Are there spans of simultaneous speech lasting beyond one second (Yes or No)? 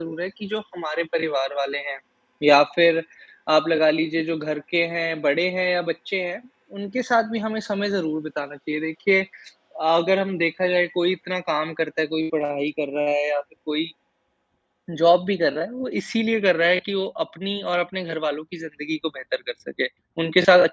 No